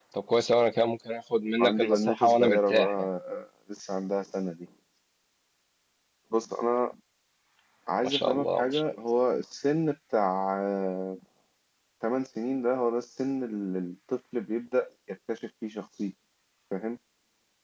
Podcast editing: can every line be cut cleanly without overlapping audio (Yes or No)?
No